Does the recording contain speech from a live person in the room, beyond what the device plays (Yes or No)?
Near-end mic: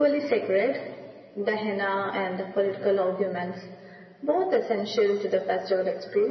No